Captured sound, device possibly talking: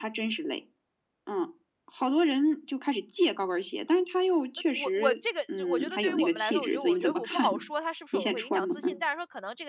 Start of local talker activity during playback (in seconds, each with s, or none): 4.5 s